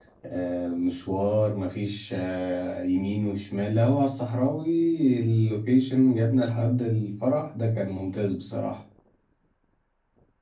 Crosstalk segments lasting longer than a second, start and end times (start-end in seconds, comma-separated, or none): none